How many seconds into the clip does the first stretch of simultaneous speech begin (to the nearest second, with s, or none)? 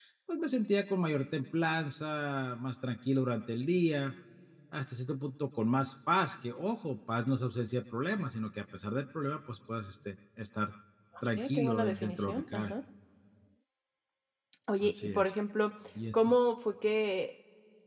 11 s